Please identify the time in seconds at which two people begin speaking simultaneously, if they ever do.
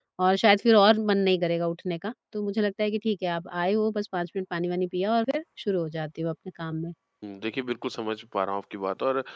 none

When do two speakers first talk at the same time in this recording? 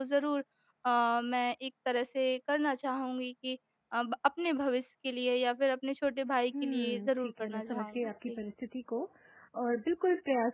7 s

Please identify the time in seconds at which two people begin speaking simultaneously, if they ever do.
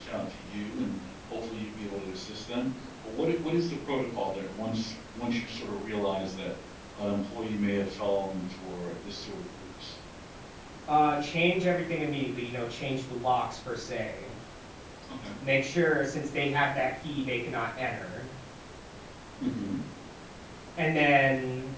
none

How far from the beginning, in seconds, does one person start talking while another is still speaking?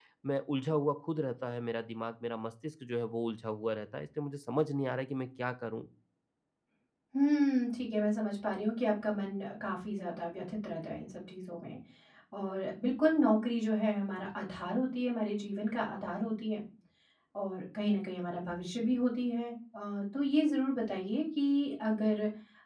none

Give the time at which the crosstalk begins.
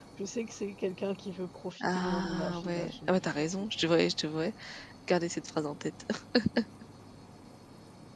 2 s

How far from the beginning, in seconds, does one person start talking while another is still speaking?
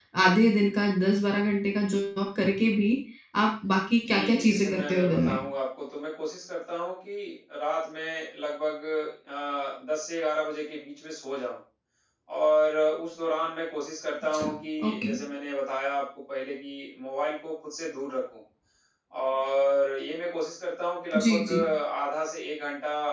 4 s

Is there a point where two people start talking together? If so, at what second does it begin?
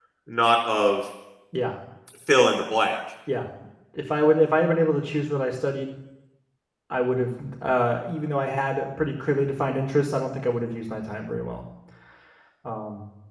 none

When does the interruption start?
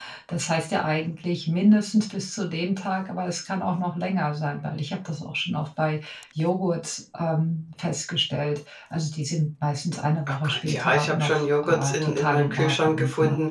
10 s

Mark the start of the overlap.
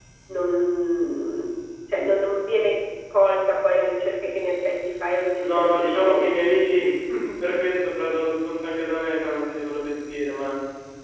5 s

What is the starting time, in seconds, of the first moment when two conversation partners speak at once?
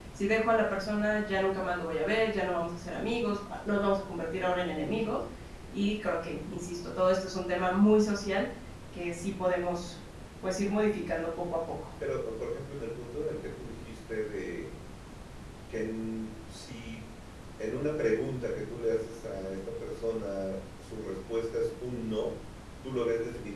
none

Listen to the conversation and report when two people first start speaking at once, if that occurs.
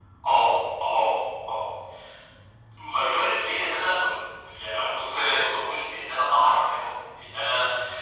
none

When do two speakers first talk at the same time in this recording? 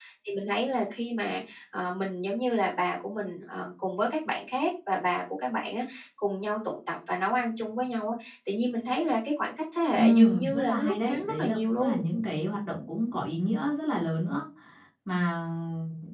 10 s

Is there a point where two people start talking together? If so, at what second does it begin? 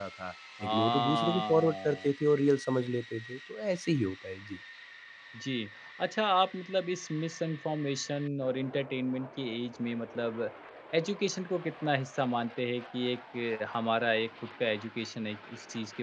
1 s

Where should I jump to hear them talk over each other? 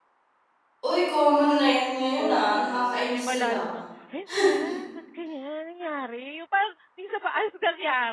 2 s

